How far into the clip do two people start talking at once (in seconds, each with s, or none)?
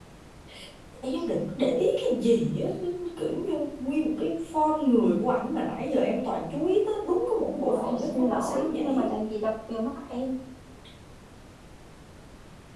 7.7 s